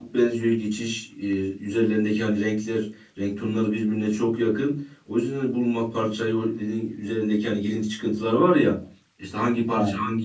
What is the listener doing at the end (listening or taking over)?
listening